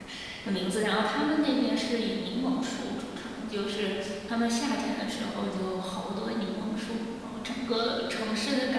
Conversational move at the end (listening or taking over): listening